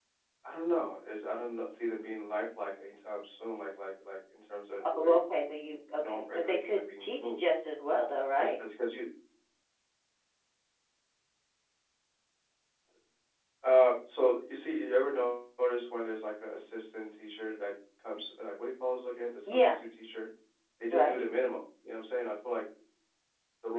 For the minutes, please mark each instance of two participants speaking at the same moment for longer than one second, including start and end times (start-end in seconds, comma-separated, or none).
6.0-7.3